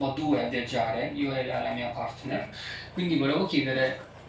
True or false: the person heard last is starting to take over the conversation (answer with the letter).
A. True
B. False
B